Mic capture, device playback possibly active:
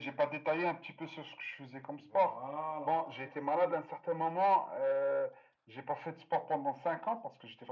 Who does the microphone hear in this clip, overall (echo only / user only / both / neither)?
both